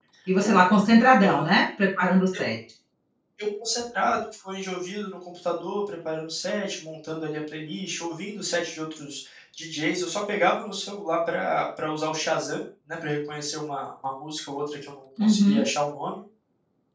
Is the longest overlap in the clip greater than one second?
No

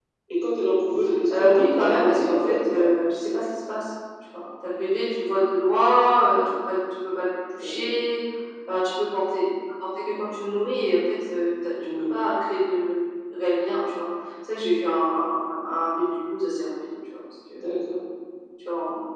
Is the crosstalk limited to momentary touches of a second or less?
No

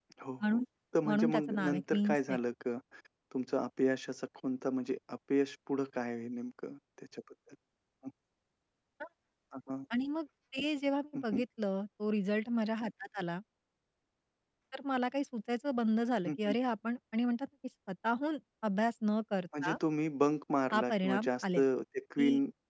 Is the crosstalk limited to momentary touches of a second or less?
No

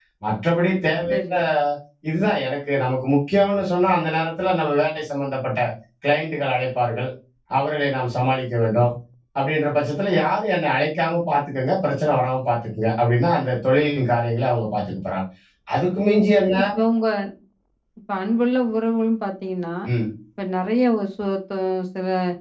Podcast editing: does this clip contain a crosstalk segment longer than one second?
No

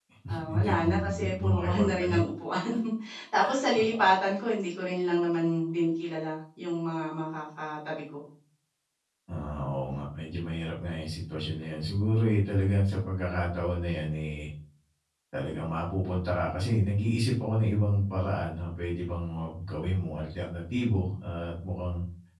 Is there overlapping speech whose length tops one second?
Yes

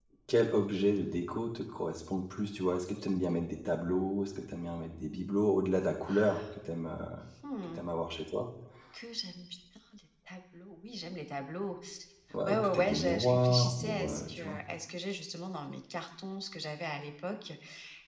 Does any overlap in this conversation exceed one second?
Yes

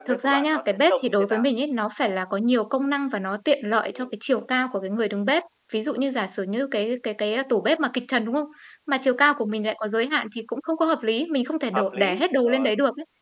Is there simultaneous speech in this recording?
Yes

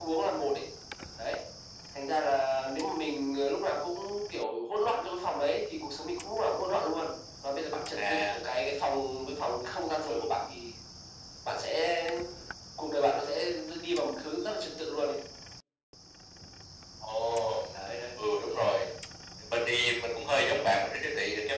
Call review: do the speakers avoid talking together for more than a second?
Yes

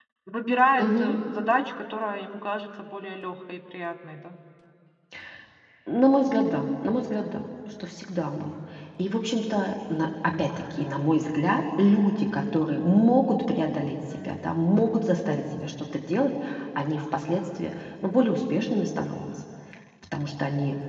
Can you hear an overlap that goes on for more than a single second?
No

